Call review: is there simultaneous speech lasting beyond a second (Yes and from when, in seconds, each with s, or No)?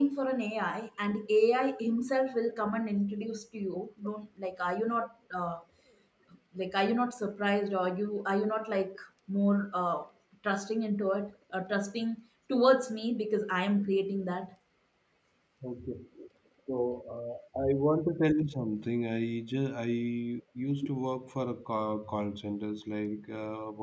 No